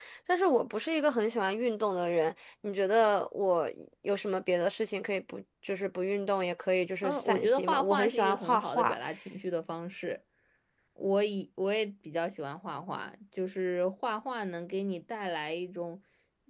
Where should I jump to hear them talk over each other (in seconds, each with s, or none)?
7.0 s